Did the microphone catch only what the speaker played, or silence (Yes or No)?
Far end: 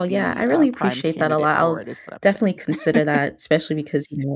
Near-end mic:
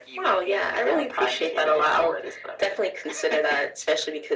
Yes